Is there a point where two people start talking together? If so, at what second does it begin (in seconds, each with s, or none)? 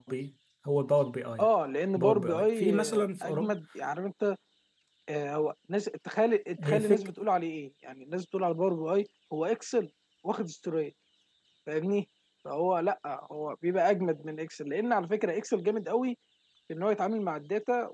1.9 s